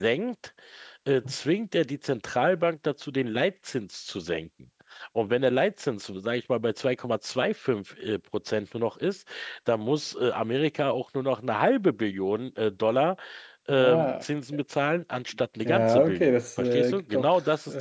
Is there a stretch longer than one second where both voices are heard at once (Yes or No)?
Yes